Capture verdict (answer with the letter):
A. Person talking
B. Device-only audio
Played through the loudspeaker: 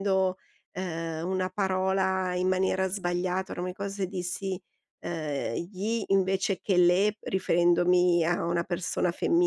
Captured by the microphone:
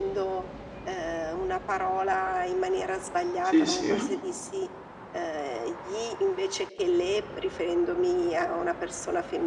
A